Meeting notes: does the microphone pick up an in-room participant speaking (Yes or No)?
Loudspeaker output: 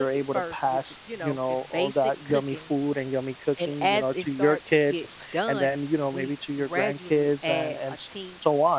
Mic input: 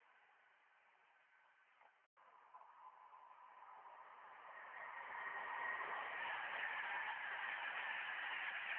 No